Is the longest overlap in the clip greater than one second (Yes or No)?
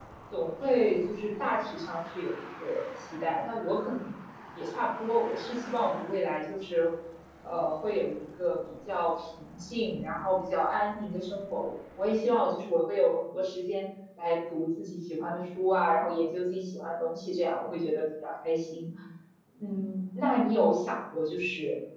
No